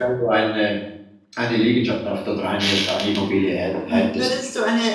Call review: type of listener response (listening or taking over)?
taking over